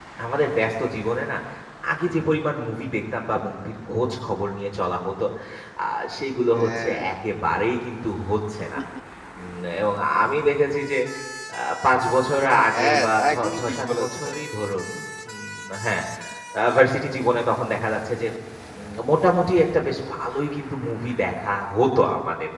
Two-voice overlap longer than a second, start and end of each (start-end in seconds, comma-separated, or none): 12.8-14.1